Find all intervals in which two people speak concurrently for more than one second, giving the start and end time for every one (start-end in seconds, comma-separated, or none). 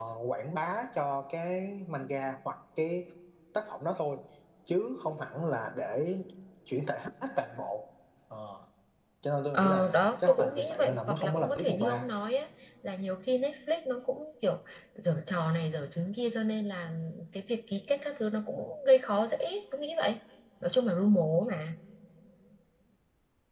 9.5-12.1